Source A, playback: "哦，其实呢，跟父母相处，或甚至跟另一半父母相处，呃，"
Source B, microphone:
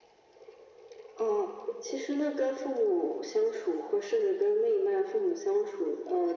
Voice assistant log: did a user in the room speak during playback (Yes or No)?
No